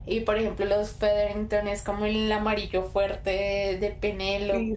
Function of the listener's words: listening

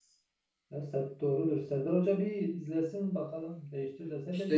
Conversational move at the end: taking over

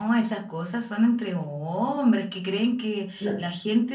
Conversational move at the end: listening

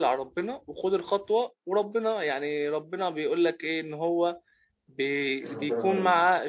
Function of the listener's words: listening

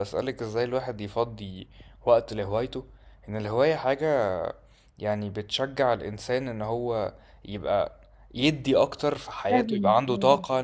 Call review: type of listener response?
listening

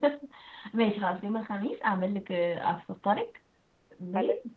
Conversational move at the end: listening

